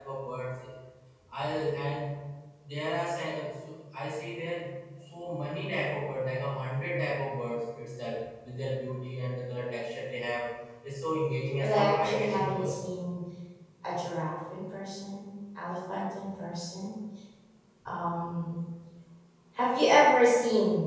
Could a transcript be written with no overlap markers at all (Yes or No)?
No